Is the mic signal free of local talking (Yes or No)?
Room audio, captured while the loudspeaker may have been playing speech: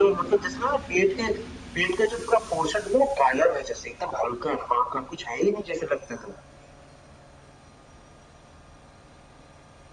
Yes